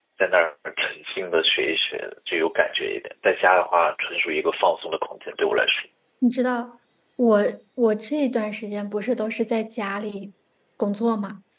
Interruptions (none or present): none